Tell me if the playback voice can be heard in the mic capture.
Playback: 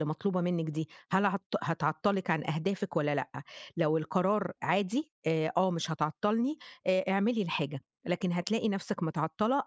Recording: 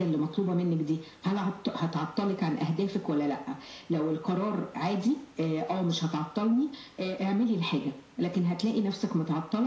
Yes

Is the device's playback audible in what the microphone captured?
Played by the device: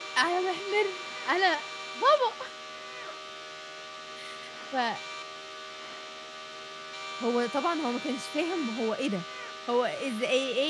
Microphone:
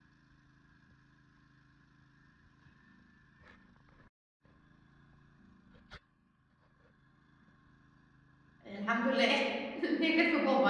No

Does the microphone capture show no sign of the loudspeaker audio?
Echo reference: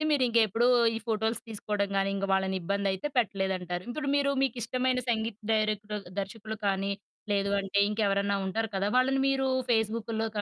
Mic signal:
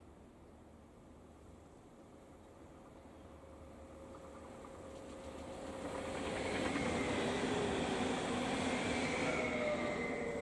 Yes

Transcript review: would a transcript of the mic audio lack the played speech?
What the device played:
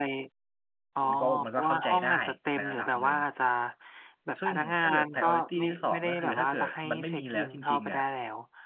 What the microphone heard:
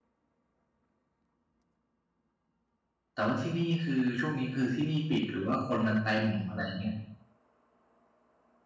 Yes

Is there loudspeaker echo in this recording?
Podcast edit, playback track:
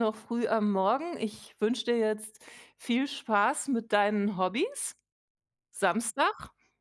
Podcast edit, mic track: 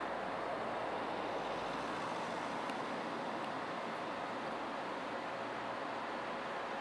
No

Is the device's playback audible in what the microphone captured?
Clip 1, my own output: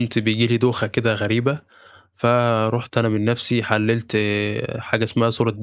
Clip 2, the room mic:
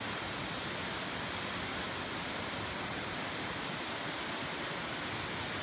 No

